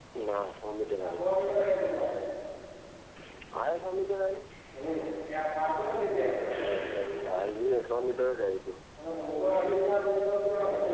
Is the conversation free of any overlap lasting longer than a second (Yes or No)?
Yes